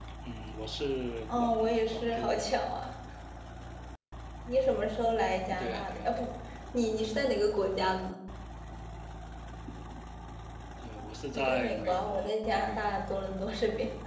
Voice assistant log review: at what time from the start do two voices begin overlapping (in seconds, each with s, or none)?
1.3 s